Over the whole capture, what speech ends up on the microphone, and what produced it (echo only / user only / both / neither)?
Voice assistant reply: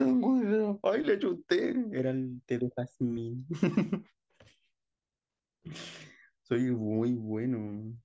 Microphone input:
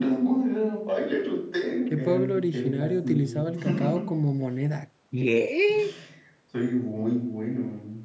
both